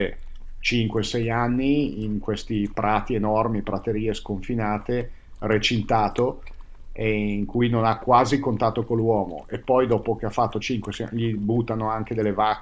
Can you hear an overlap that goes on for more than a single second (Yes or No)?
No